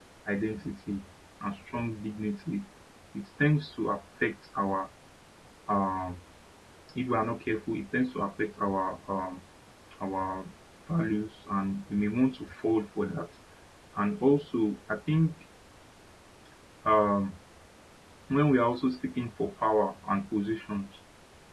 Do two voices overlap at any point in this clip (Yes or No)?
No